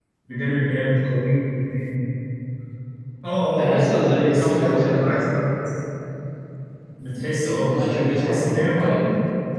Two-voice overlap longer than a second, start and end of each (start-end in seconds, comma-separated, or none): 3.6-5.2, 7.4-9.0